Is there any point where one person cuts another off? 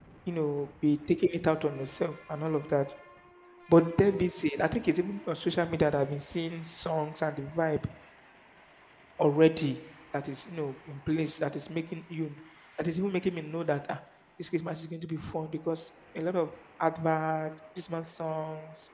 No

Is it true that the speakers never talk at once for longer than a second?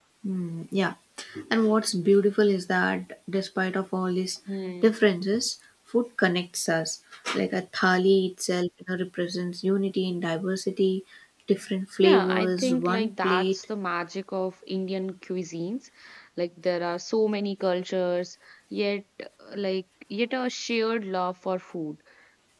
No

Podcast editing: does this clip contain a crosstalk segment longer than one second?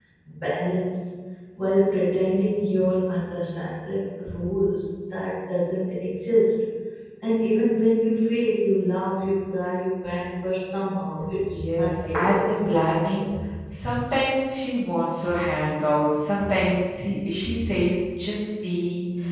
Yes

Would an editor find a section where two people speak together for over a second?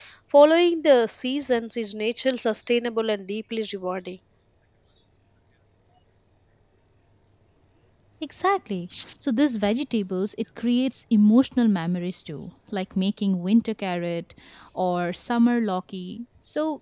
No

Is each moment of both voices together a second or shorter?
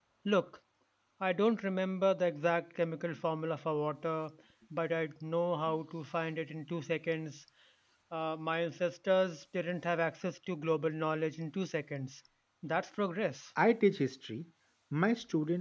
Yes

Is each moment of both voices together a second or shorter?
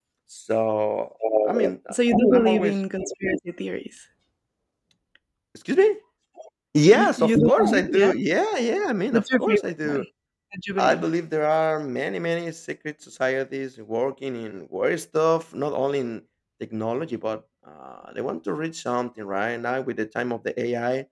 No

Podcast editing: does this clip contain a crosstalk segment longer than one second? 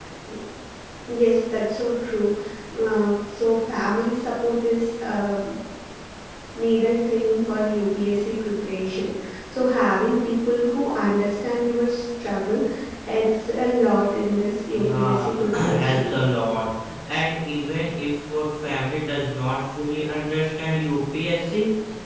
Yes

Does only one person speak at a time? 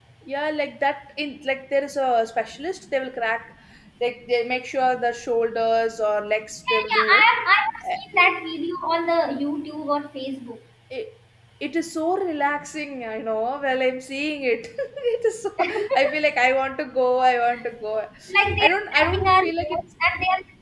No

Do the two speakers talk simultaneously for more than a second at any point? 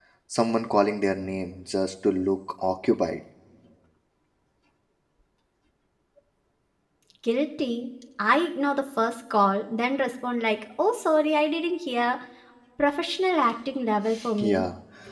No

